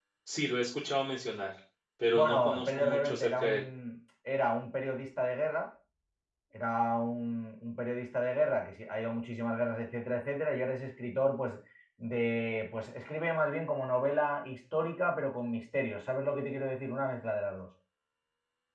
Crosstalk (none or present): present